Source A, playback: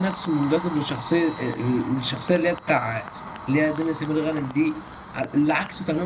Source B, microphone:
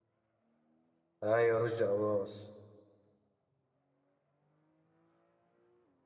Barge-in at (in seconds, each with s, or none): 1.2 s